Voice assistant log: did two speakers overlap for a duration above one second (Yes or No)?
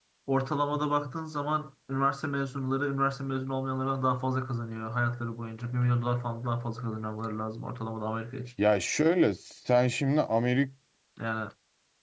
No